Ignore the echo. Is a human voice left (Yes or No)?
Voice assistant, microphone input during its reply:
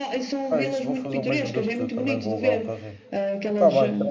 Yes